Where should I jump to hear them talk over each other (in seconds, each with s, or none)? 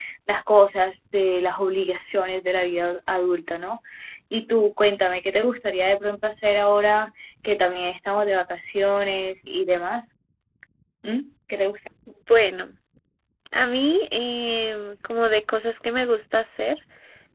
none